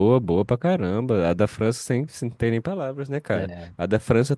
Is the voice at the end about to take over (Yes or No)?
No